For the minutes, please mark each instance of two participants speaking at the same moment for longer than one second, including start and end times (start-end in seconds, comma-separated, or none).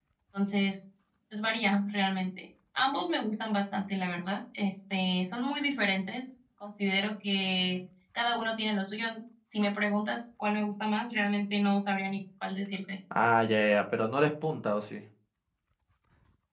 none